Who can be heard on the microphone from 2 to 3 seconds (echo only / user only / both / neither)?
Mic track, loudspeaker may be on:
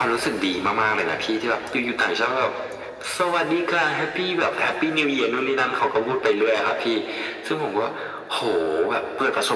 echo only